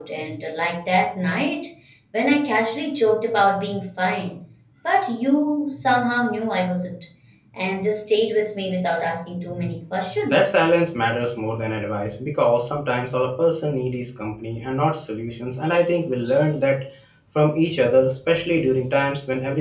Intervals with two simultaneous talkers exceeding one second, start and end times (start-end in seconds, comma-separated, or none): none